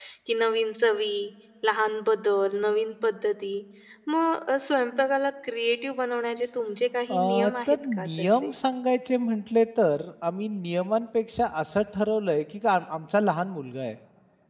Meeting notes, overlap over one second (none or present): present